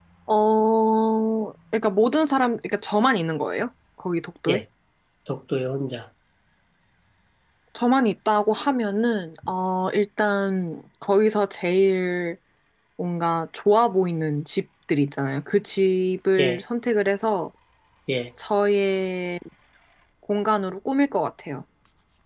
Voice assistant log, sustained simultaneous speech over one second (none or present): none